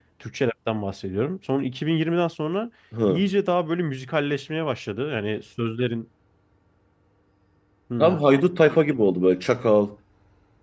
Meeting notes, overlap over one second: none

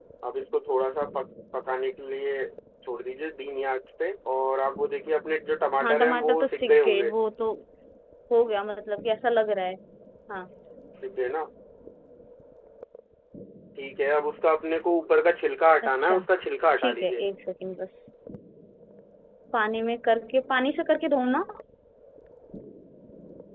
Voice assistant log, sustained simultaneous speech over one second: present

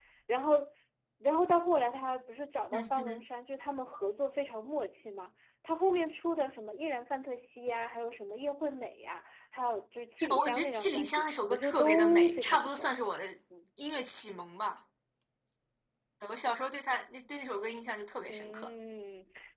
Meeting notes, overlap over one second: present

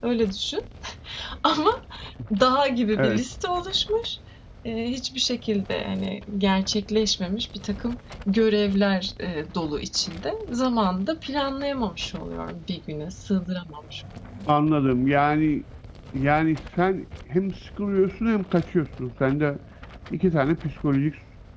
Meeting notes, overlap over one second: none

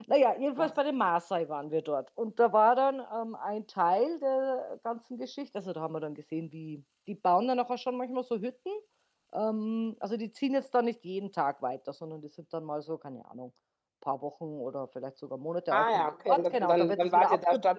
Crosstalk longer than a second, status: present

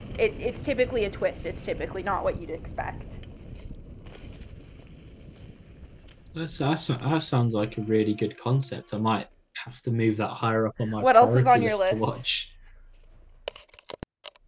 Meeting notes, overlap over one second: present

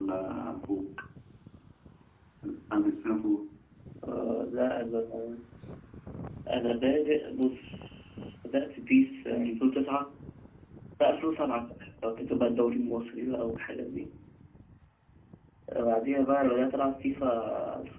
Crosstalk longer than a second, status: none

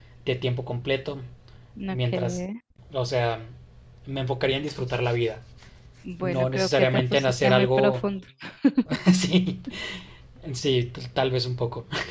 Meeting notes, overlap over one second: present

